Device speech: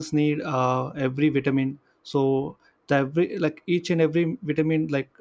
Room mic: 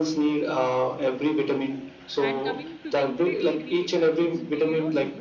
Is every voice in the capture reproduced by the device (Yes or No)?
No